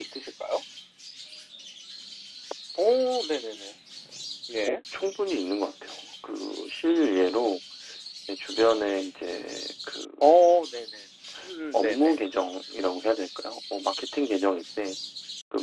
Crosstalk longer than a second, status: none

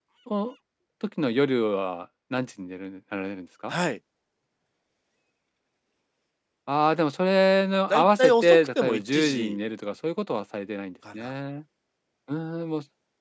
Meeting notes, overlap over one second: present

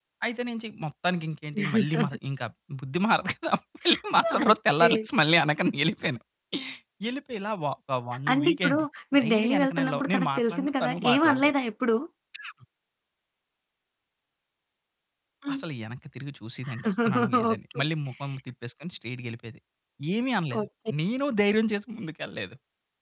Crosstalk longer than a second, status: present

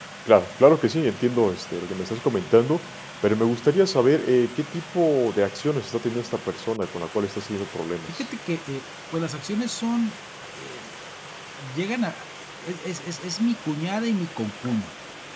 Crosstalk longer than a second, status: none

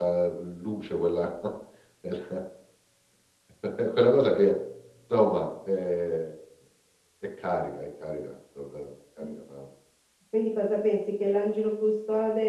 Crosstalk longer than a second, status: none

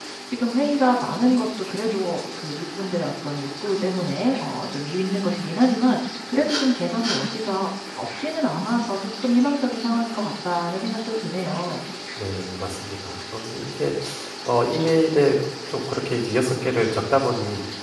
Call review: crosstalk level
none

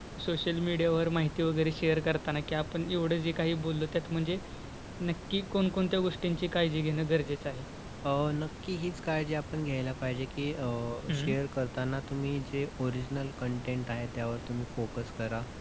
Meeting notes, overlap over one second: none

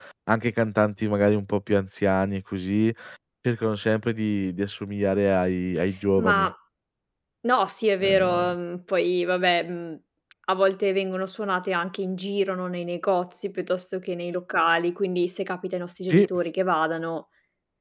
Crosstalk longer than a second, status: none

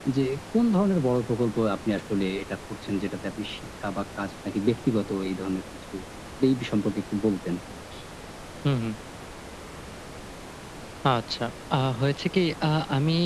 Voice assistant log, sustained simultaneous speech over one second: none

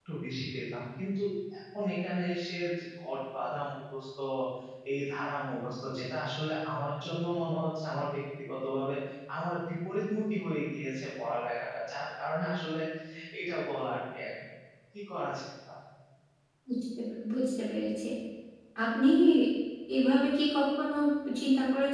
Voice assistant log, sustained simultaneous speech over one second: none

